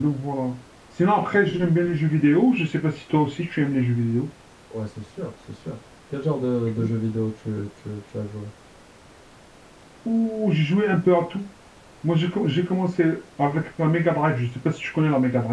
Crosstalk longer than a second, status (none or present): none